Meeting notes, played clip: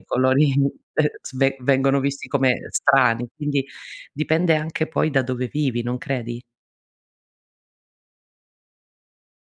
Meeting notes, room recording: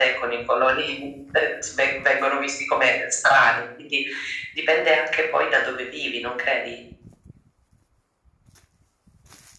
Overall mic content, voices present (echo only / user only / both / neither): echo only